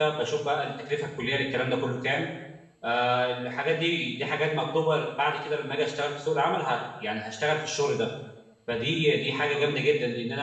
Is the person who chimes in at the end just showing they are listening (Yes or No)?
Yes